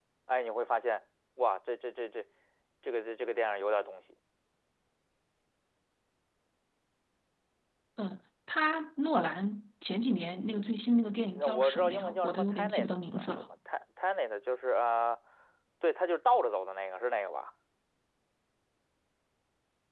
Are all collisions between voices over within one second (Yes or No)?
No